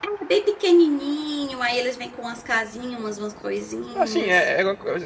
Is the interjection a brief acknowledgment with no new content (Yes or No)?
No